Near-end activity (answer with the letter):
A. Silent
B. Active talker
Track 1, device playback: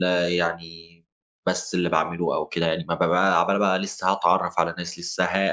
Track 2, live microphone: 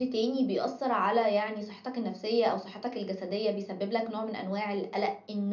B